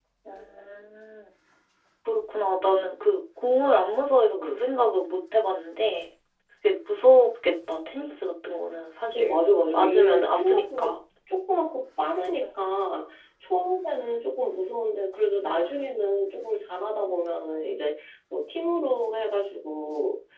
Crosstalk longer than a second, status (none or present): present